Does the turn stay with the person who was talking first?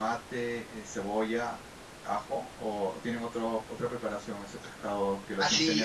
No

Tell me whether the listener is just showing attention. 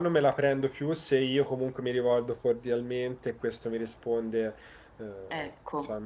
Yes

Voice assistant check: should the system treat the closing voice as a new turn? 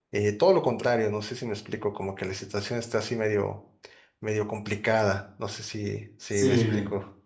Yes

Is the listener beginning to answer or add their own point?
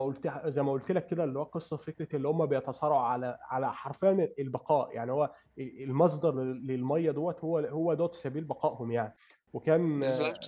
No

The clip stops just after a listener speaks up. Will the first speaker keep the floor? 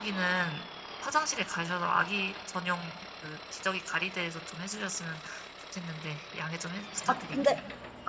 No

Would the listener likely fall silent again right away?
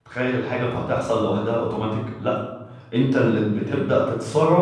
Yes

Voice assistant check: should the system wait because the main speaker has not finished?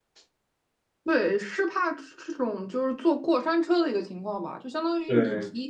Yes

